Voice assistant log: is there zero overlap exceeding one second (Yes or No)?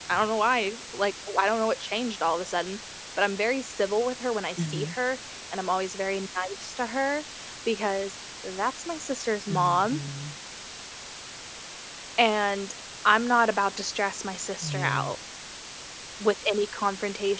Yes